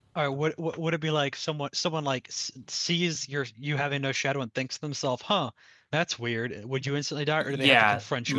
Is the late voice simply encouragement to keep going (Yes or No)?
No